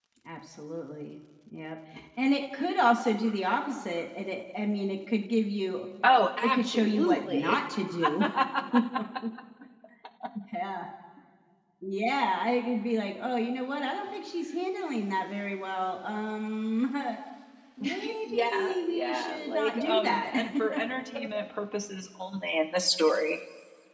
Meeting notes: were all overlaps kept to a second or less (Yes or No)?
No